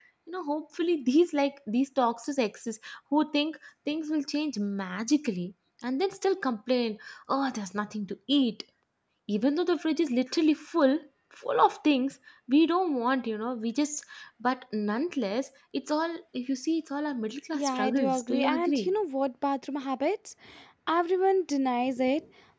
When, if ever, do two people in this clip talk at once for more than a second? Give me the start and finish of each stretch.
17.5-18.9

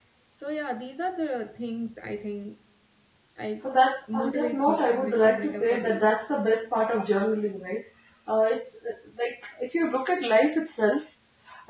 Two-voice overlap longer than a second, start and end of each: 4.1-6.1

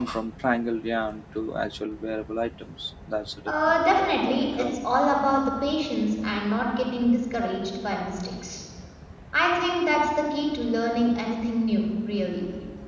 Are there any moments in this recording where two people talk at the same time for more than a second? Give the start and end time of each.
3.5-4.7

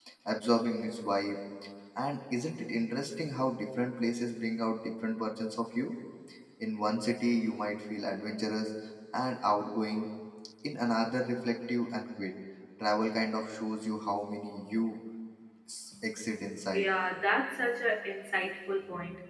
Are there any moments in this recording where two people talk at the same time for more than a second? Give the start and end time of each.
none

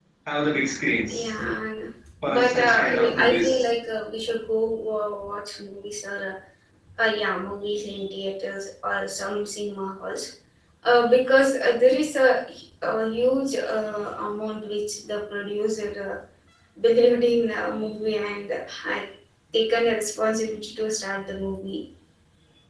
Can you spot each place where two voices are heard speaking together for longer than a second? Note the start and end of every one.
2.3-3.6

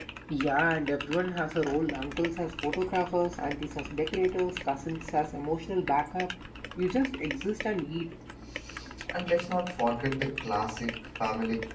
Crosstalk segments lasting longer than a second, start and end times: none

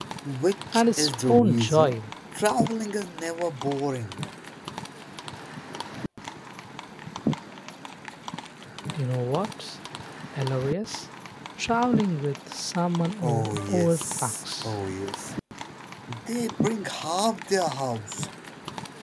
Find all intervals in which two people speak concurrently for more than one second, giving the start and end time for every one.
0.7-2.0, 13.2-14.7

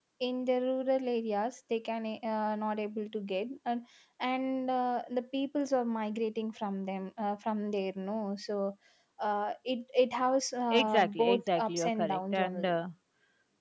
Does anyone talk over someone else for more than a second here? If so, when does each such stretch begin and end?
10.8-12.8

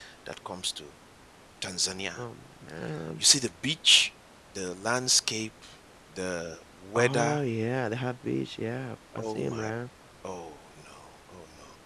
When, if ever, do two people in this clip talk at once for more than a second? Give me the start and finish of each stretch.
none

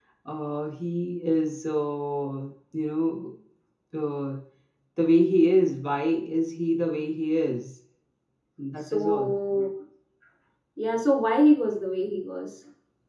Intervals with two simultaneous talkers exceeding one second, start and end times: none

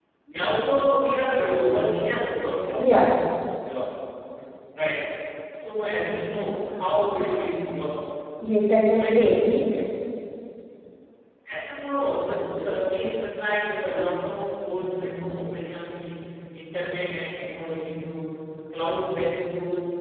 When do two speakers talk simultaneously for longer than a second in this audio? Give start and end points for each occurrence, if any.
none

